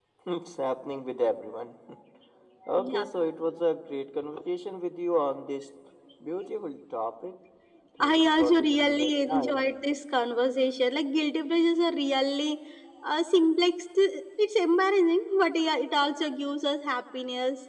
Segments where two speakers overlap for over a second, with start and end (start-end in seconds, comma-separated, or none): 8.0-9.9